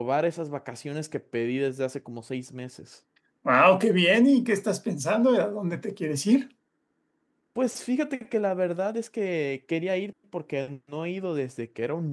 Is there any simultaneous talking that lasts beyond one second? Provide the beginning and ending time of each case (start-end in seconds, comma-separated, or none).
none